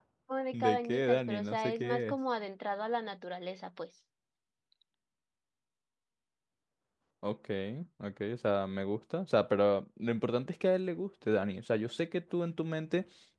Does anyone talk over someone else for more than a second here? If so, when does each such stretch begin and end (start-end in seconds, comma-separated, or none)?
0.5-2.2